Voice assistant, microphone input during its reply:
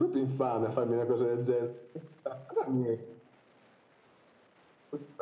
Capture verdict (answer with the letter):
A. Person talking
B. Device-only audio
B